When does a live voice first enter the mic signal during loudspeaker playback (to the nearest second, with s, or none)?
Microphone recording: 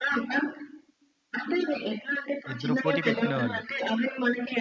3 s